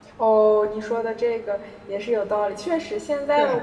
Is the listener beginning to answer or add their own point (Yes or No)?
No